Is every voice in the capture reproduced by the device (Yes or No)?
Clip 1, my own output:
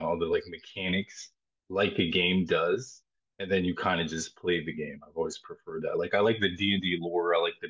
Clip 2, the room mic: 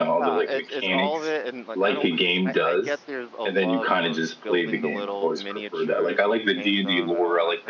No